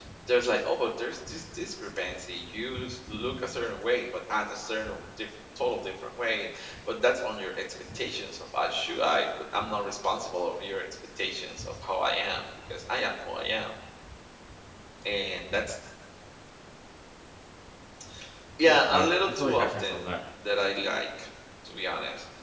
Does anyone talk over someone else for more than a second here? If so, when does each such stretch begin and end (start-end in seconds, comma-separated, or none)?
18.6-20.1